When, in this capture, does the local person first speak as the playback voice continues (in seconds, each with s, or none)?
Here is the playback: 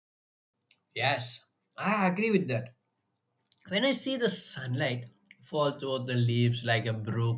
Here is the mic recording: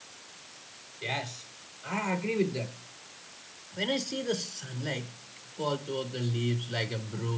none